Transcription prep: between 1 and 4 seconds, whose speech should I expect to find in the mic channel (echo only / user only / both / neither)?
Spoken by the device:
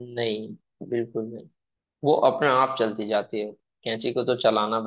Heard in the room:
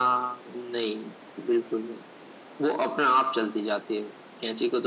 echo only